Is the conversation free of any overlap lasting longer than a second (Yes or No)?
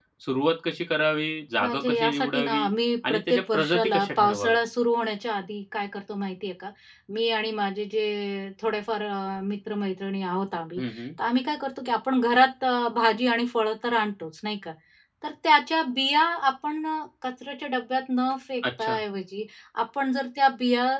No